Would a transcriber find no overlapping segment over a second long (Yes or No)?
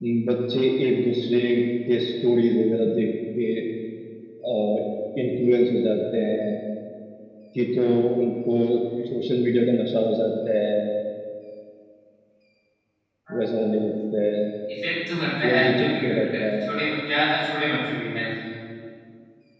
No